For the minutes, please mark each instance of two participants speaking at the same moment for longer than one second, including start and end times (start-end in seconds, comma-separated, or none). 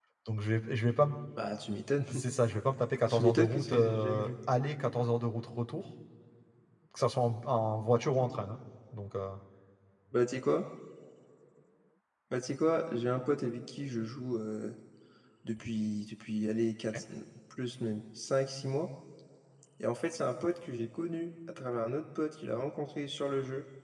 3.1-4.3